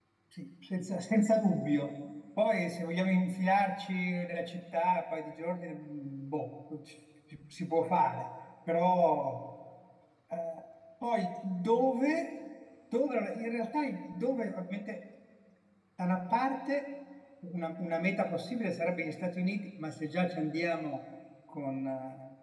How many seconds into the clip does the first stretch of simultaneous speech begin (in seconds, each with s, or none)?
none